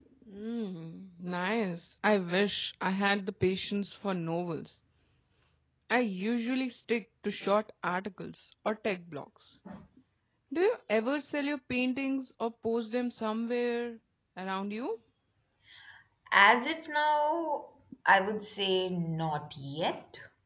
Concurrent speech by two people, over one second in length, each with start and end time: none

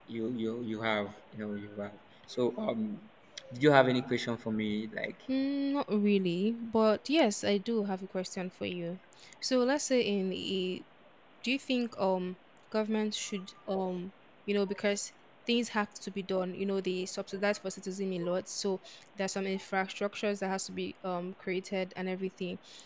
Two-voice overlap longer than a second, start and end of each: none

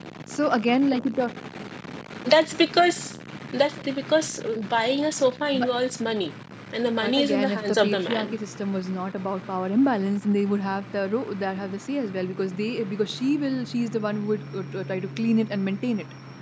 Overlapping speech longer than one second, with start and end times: 7.0-8.3

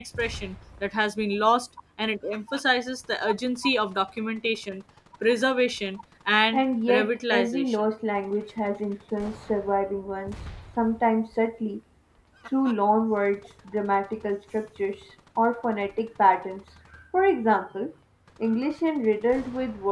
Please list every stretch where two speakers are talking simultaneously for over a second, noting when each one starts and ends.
6.5-7.8

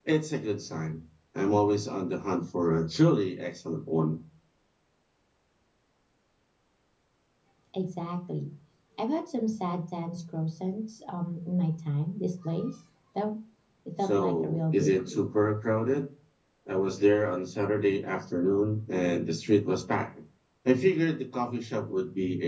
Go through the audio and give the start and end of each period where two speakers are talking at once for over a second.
14.0-15.2

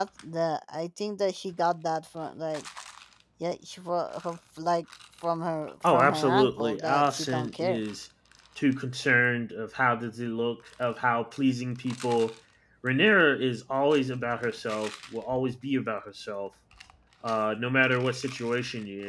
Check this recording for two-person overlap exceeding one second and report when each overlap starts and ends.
5.9-7.8

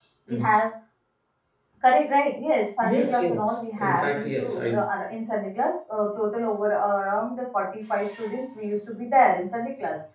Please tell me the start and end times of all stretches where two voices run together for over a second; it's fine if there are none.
2.8-4.7

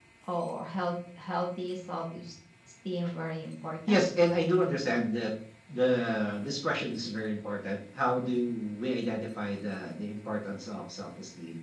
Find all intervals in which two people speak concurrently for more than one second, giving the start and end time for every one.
none

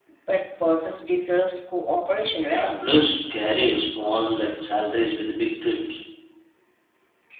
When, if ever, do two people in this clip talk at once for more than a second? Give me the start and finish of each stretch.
none

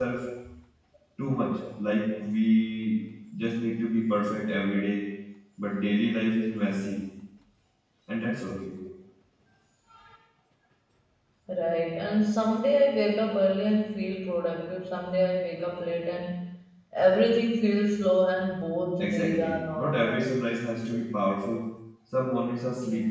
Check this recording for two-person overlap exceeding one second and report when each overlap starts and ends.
19.0-20.3

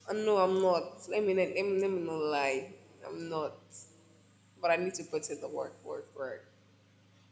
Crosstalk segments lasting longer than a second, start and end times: none

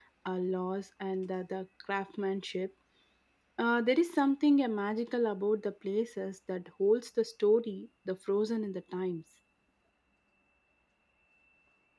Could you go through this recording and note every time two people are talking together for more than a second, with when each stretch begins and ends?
none

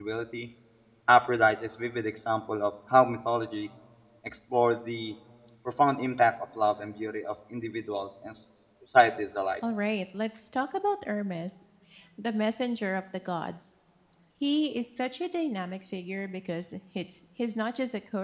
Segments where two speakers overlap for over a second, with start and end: none

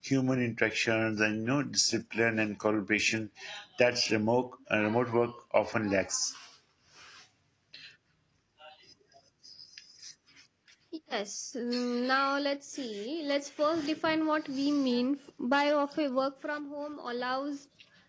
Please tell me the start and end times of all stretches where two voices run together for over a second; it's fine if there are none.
none

